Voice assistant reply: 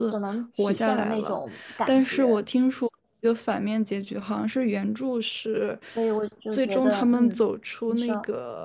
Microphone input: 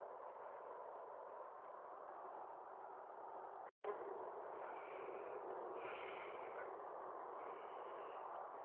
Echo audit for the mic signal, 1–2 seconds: neither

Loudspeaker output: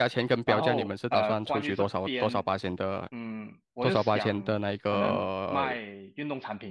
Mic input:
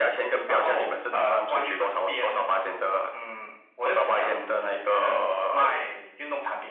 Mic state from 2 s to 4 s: echo only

